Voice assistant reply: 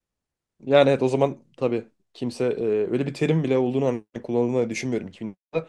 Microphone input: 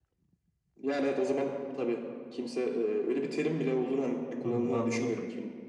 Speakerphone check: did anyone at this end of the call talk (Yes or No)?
Yes